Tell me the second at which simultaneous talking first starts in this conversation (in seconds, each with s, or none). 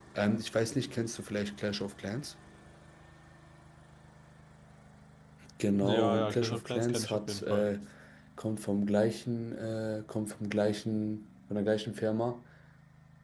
5.8 s